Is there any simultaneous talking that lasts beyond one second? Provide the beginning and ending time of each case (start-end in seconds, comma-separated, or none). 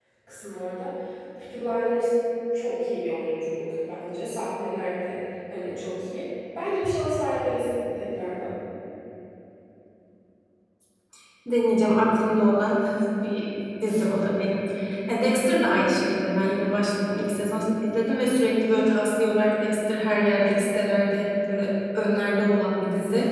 none